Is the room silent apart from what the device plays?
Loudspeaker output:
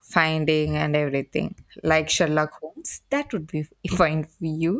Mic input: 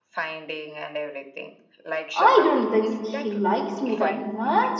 No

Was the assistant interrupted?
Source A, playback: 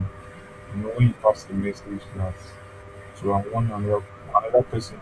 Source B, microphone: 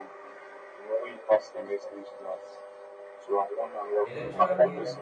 Yes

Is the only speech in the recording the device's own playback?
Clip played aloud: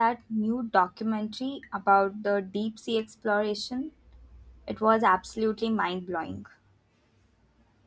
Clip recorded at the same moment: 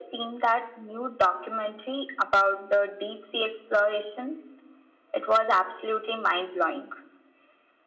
Yes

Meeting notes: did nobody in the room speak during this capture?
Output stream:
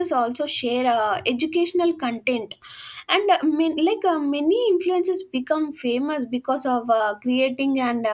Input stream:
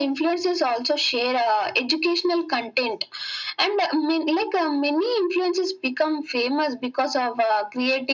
Yes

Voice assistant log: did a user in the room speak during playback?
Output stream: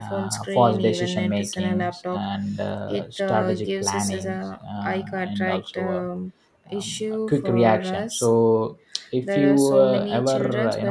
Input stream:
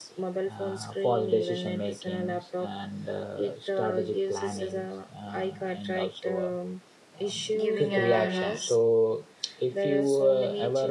Yes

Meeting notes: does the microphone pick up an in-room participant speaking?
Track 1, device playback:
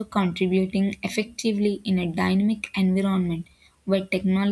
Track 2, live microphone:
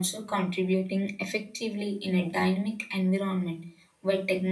No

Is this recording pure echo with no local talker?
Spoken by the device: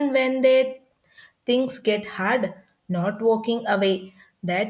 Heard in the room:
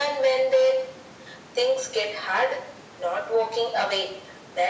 Yes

